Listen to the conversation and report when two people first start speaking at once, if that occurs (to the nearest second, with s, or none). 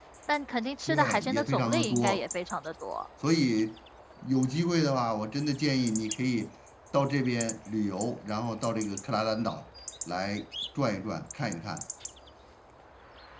1 s